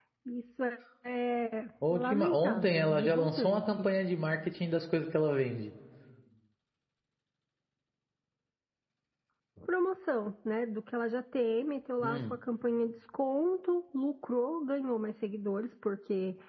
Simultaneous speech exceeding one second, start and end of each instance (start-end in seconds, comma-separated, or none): 1.9-3.9